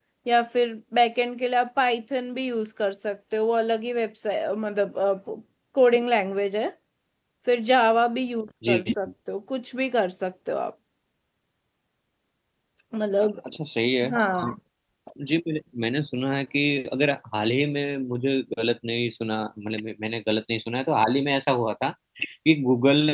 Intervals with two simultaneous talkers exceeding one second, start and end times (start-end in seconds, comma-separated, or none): none